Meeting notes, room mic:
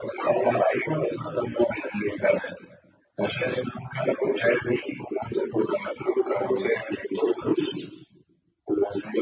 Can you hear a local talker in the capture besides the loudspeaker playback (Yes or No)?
No